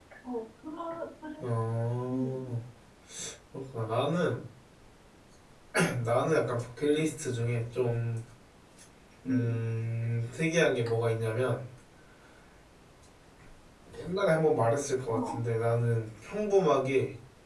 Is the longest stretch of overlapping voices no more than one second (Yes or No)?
Yes